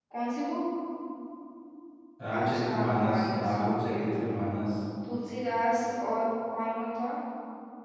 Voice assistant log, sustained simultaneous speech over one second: present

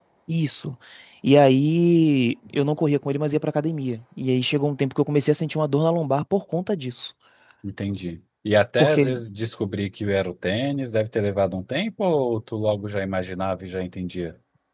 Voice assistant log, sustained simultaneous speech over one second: none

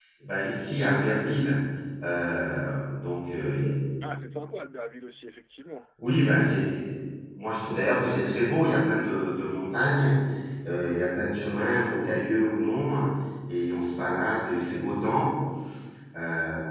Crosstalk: none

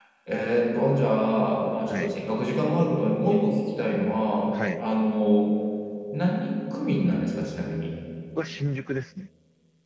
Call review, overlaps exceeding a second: none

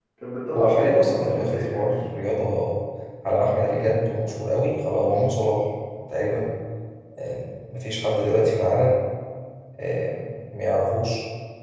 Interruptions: present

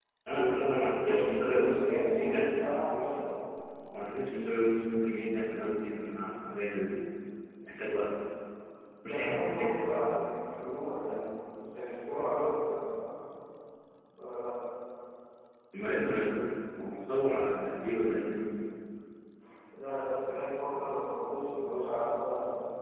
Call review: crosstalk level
present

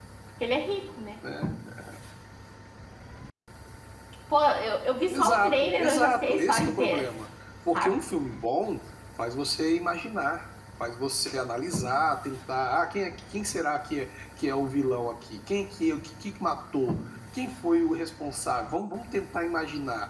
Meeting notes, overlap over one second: present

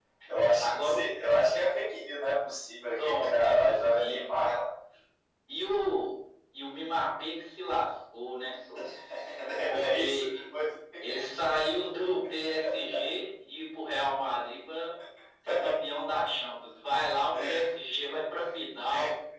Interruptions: present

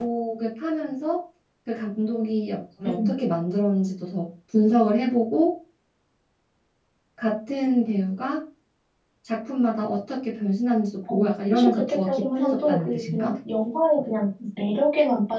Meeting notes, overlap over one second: present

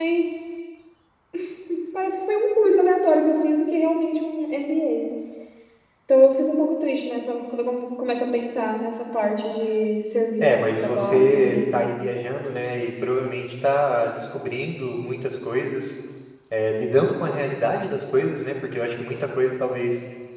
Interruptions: present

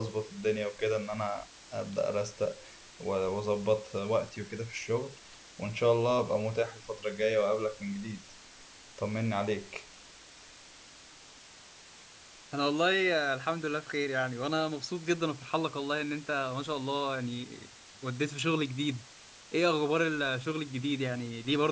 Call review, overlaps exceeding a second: none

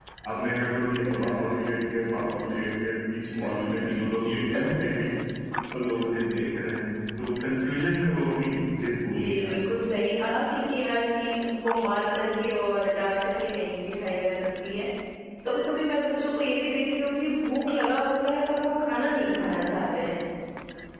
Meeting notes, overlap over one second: none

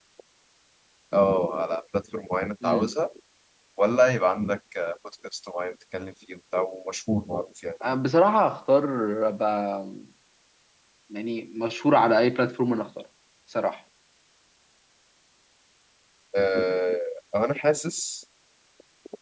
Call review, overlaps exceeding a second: none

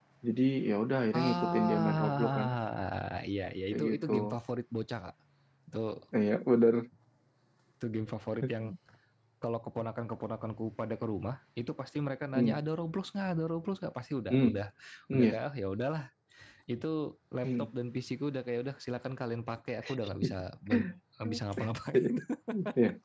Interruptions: present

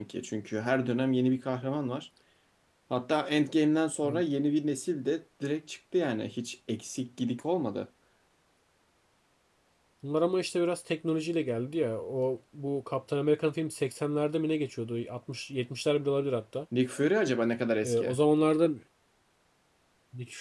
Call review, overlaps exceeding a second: none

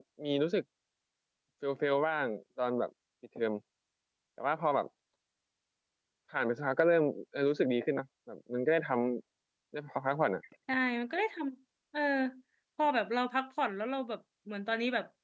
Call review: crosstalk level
none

